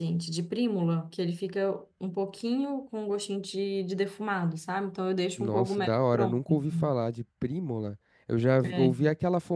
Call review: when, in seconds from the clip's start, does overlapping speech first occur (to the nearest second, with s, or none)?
5 s